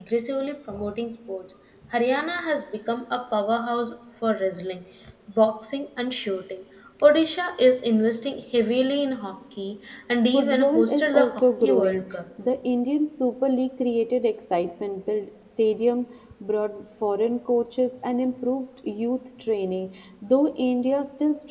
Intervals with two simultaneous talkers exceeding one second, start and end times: 10.3-12.1

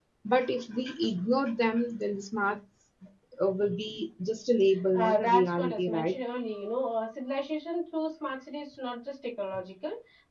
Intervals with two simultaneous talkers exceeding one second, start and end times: 4.9-6.2

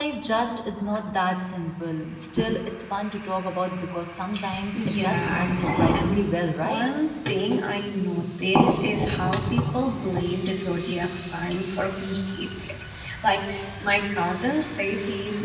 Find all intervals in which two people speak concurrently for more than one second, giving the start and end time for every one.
4.7-6.2

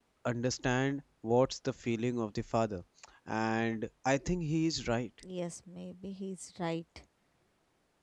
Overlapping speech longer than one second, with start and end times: none

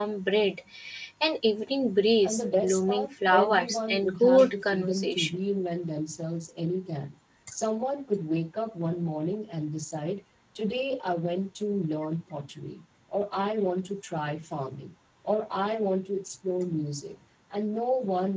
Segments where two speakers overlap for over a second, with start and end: 2.2-5.3

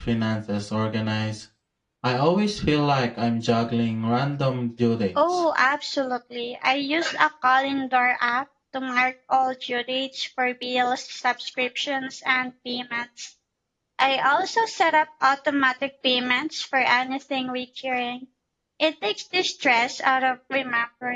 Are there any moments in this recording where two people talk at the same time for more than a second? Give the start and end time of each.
none

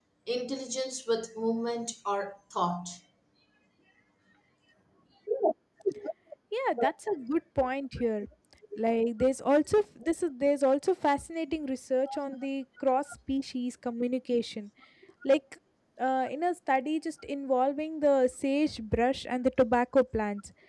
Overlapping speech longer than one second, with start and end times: none

